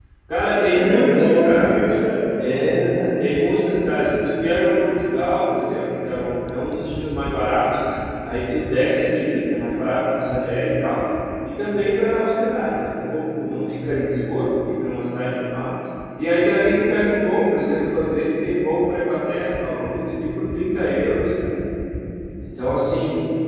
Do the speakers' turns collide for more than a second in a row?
Yes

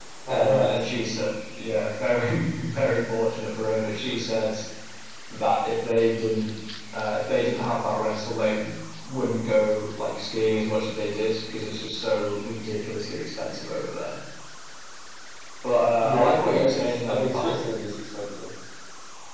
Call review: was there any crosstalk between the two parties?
Yes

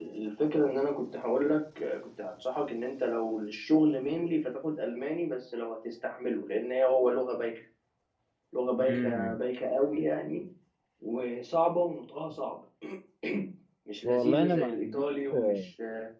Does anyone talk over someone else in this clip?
Yes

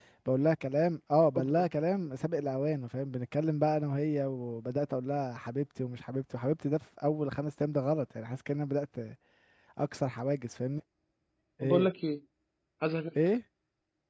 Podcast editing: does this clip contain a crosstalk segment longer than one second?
No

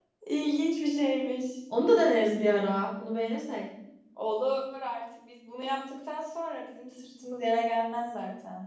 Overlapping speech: No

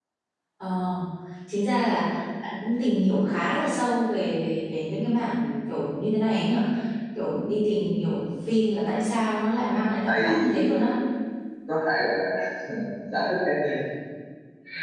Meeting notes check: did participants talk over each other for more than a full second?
Yes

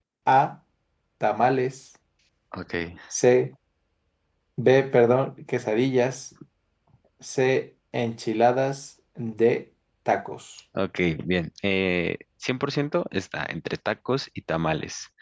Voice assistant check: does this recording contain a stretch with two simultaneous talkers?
No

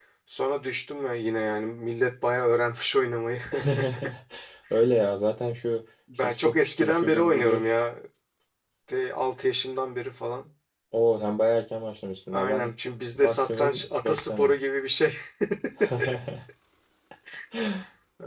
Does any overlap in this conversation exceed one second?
Yes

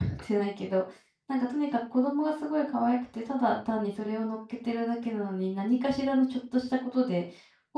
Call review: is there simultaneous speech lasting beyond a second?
No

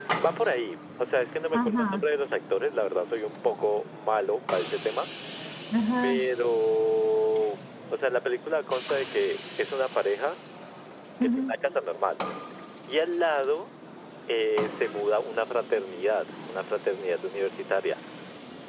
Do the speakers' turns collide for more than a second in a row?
No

